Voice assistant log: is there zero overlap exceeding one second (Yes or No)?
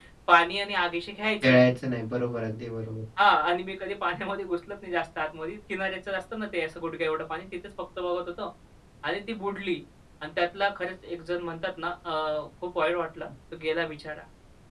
Yes